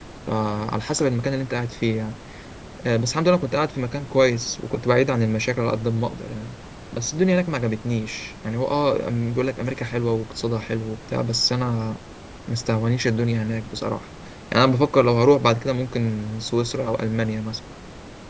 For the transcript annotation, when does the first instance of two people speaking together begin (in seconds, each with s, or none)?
none